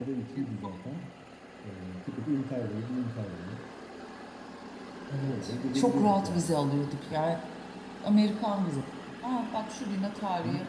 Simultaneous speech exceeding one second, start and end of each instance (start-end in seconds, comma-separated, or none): 5.2-6.6